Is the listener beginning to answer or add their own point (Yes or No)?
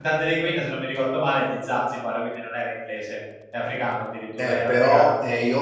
Yes